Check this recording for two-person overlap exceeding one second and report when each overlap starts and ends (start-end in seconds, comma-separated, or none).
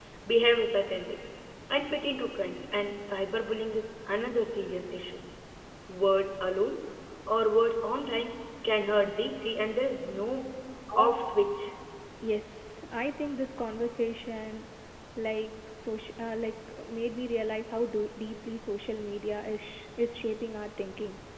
none